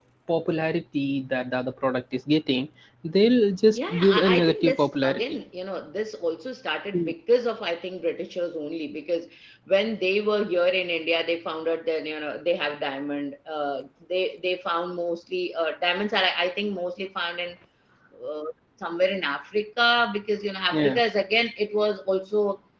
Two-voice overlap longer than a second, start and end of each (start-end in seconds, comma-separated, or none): 3.7-5.4